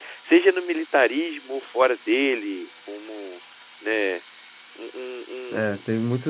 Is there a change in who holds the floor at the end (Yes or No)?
Yes